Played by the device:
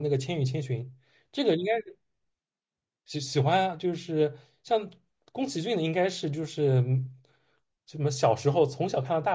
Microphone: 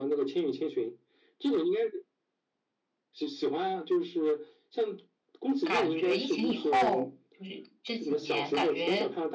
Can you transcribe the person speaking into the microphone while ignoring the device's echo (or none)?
感觉疫情以后，就是这几年感觉